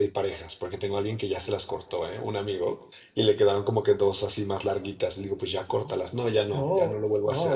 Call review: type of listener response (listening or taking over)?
taking over